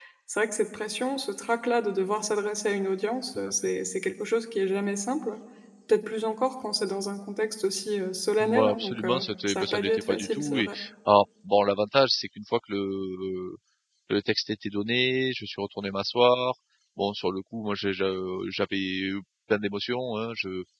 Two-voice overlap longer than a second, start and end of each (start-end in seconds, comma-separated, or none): 8.4-10.7